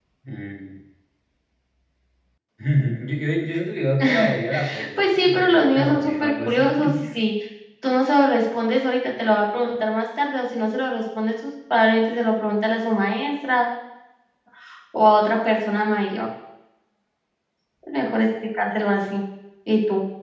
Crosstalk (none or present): present